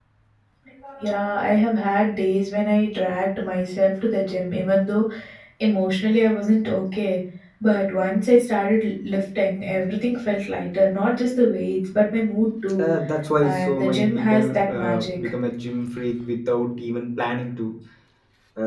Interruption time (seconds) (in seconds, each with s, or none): 13.4 s